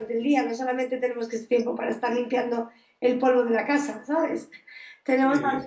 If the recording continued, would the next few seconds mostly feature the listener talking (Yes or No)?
No